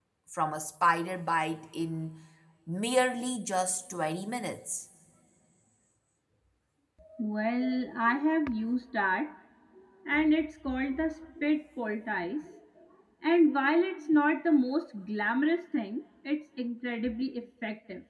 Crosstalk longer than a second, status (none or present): none